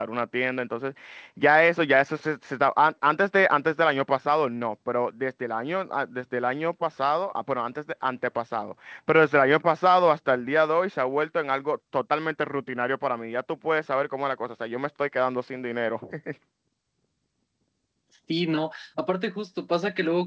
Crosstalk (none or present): none